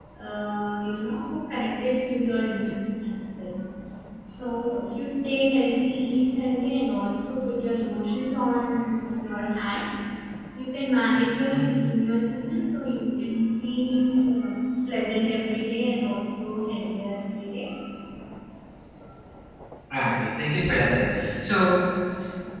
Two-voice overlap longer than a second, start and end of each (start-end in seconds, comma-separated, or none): none